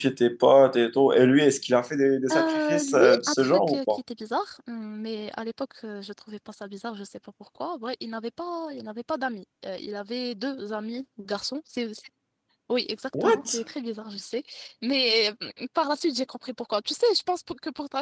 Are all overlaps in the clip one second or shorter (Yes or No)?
No